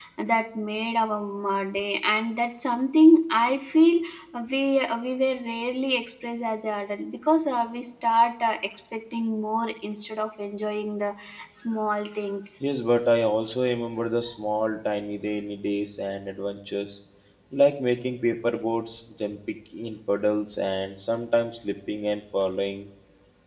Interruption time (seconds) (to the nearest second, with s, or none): none